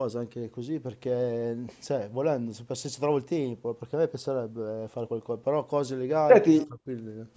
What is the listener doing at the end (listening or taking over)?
taking over